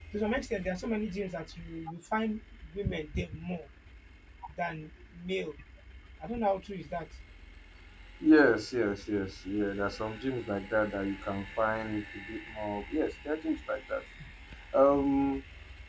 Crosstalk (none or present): none